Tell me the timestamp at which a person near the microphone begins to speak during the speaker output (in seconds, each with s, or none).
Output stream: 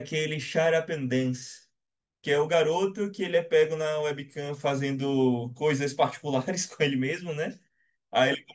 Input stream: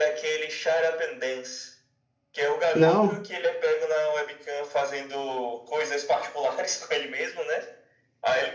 2.7 s